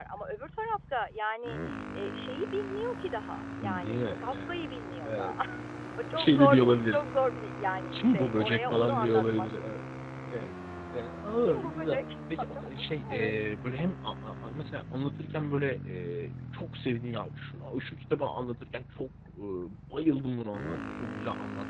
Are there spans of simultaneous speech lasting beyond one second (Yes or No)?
Yes